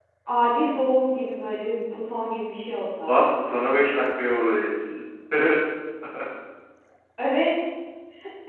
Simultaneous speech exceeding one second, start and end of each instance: none

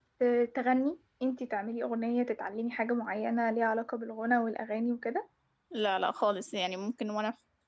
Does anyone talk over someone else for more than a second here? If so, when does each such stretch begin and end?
none

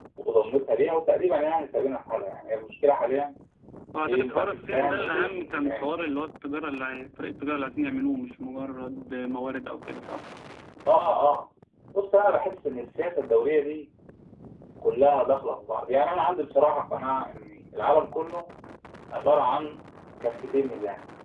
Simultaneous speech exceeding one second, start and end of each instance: 4.0-5.9

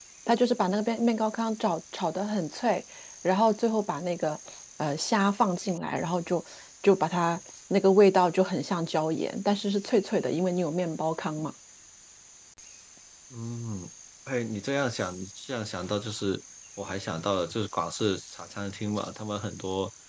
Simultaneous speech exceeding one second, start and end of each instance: none

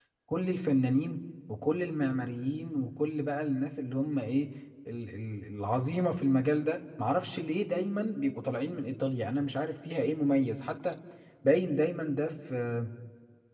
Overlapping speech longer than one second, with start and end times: none

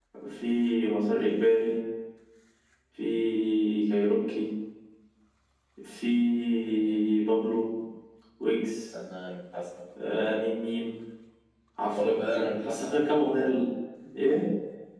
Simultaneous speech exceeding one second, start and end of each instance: 11.9-13.1

